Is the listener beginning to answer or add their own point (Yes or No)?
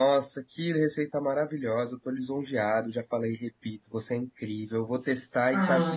Yes